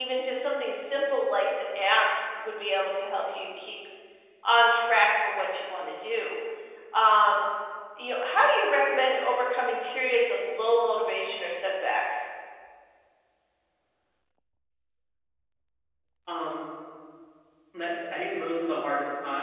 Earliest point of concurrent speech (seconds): none

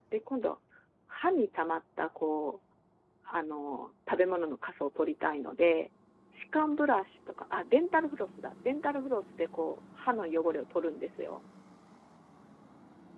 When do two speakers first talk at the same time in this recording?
none

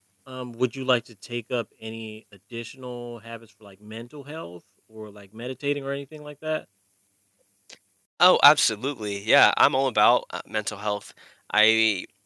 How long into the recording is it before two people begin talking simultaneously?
none

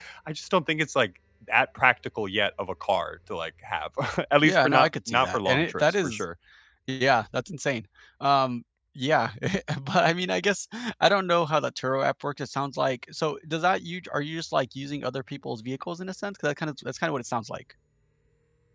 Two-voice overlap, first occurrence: 4 s

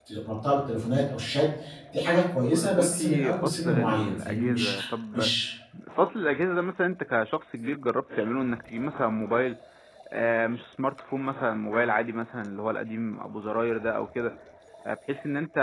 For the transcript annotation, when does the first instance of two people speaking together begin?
3 s

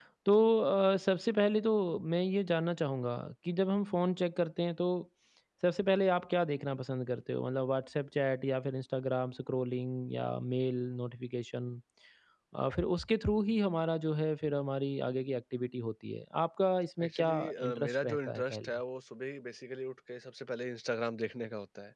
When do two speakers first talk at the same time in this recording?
17 s

